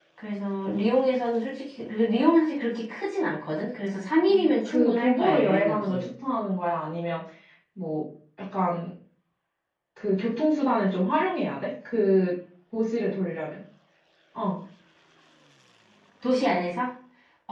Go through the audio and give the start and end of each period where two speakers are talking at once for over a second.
4.3-6.0

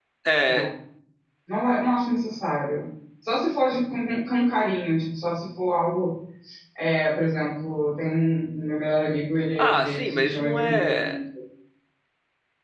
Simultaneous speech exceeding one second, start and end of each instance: 9.6-11.2

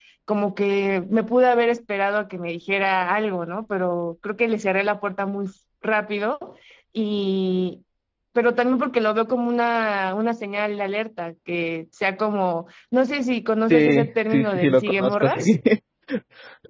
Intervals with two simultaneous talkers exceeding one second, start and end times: 13.7-15.6

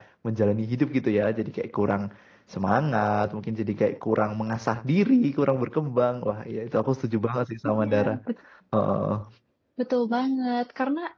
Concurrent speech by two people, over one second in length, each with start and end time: none

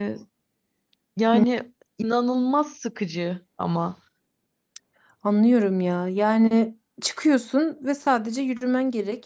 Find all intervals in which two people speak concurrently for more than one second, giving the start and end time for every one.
none

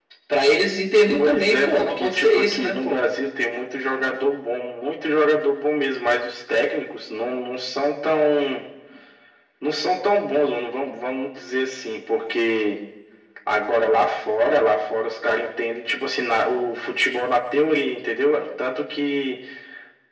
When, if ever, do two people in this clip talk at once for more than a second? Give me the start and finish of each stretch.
1.2-3.1

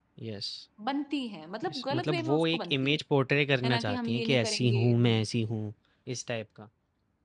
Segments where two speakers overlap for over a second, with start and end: 1.7-3.0, 3.6-5.1

